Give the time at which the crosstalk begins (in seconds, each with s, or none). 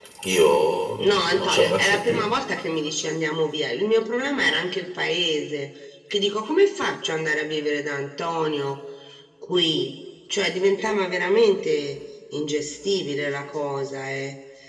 1.0 s